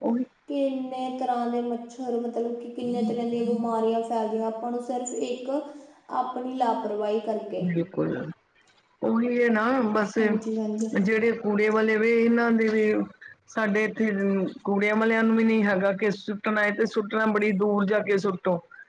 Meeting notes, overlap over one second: none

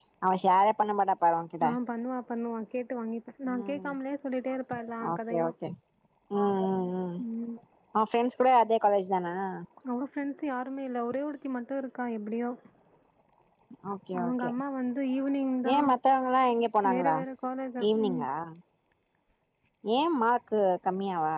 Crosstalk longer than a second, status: none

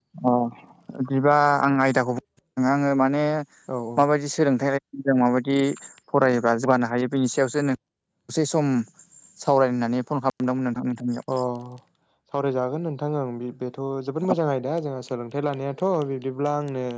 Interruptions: none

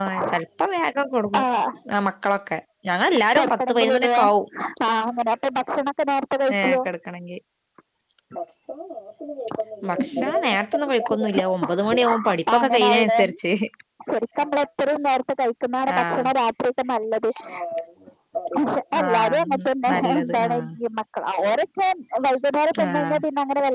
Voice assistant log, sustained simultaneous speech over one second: present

